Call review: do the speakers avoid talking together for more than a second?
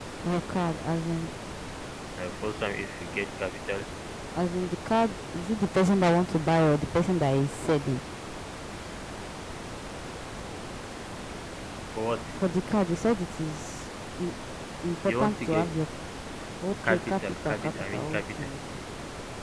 No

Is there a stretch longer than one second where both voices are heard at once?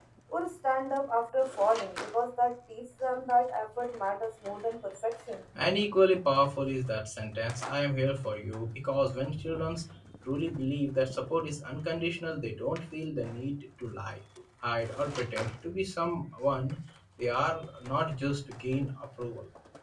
No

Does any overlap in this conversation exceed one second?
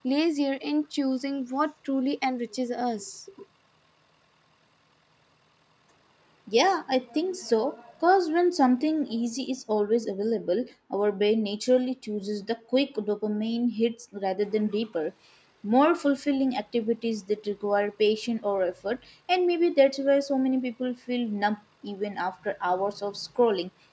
No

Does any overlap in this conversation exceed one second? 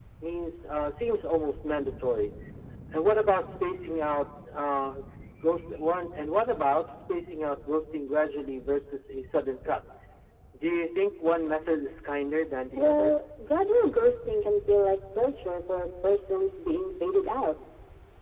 No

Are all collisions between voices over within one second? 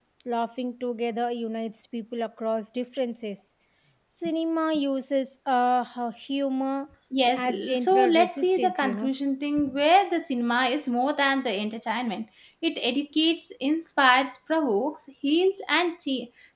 No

